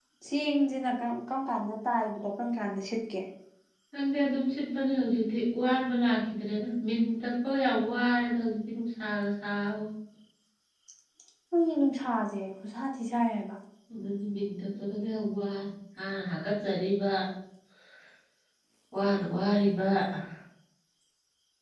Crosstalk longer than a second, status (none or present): none